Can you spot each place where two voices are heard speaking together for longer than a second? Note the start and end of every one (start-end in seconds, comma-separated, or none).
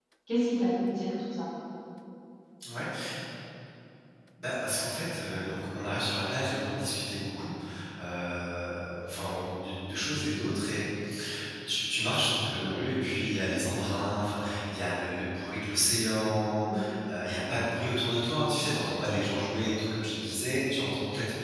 none